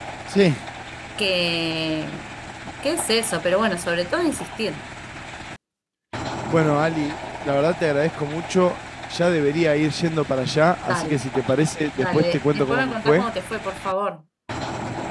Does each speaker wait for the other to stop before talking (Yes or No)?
No